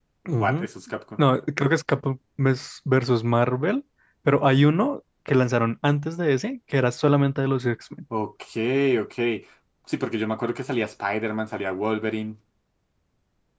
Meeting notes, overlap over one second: none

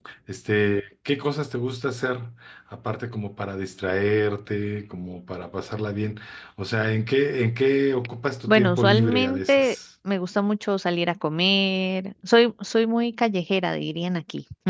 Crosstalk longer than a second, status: present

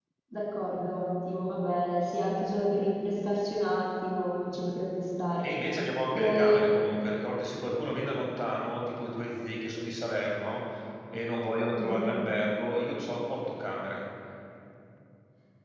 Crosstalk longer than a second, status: none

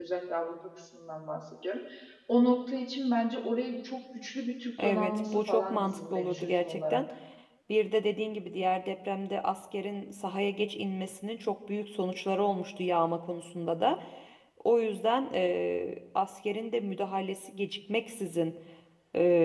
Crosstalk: present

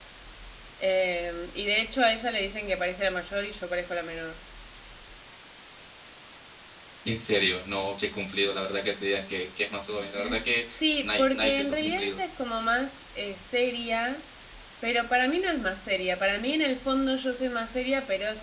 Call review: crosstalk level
present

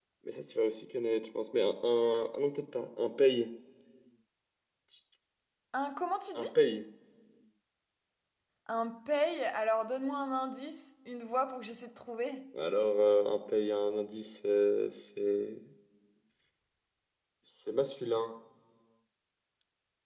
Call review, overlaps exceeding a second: none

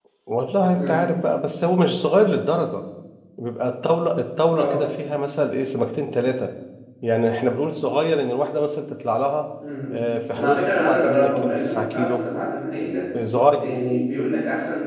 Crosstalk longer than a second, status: present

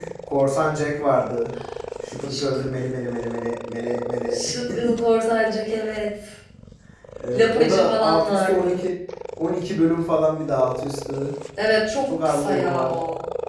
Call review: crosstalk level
present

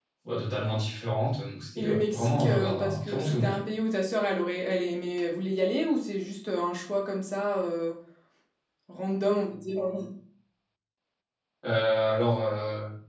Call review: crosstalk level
present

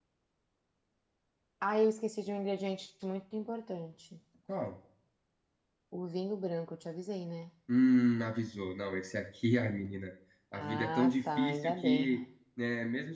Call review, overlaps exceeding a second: present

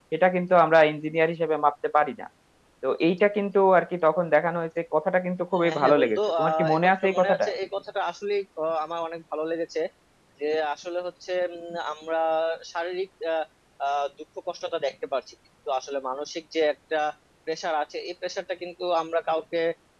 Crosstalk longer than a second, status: present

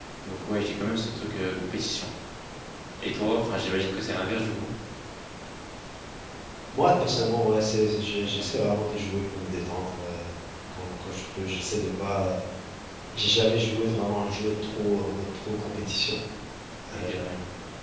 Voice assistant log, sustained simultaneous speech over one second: none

